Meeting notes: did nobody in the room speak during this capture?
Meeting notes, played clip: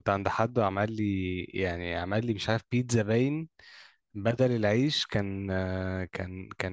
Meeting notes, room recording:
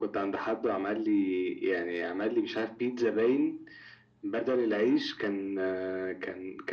Yes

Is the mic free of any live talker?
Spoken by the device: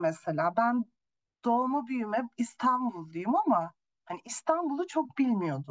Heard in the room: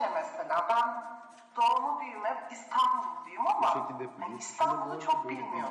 No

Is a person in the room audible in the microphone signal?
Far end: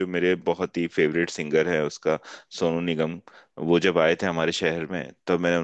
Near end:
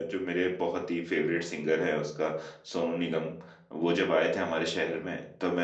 No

